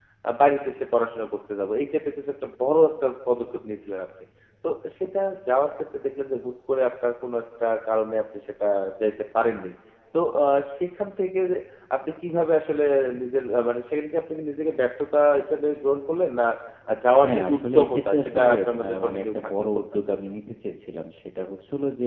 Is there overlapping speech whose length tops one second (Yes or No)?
Yes